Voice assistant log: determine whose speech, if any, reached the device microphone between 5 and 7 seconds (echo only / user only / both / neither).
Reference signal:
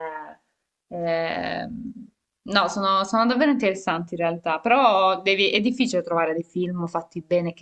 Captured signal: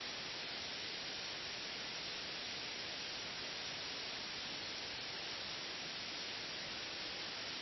neither